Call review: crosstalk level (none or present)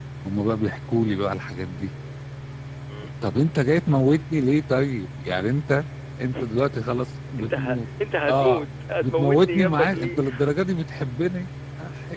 present